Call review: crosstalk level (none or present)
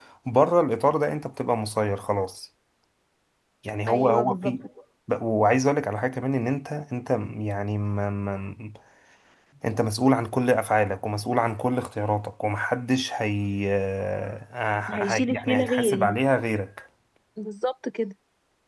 present